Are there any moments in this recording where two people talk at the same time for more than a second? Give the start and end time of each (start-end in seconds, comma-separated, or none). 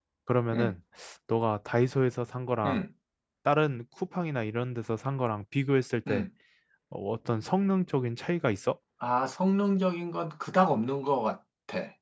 none